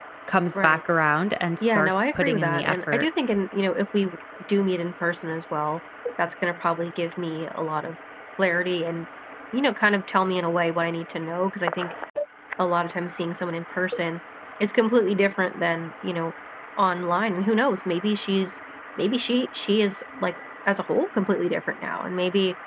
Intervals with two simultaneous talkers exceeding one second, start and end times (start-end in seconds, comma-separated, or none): 1.6-3.0